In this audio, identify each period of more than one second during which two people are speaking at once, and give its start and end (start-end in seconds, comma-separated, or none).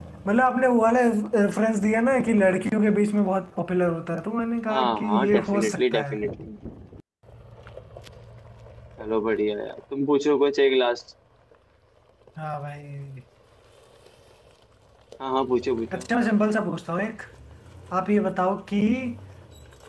4.7-6.2